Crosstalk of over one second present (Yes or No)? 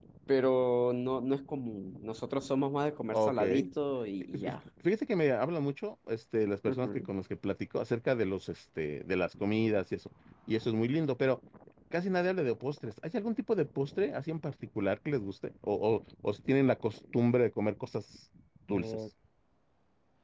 No